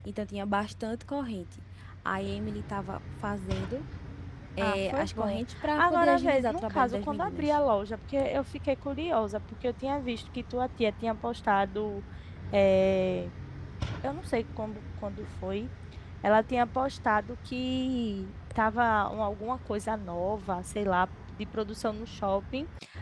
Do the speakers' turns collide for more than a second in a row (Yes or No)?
Yes